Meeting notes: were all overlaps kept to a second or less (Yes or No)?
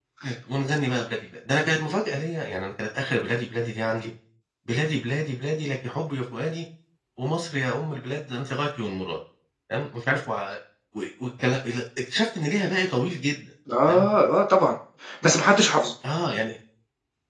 Yes